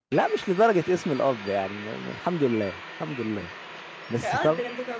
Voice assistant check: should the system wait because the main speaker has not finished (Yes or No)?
No